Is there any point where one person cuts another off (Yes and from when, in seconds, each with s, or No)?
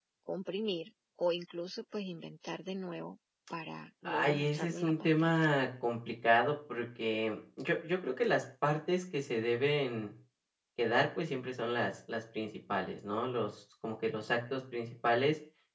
Yes, from 4.0 s